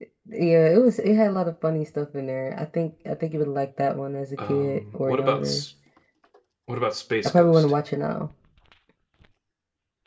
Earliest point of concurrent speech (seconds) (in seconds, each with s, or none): 4.4 s